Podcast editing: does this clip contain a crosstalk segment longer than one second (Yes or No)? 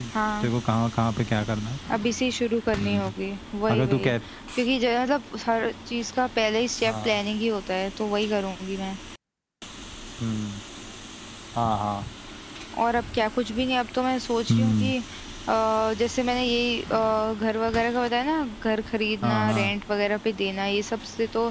No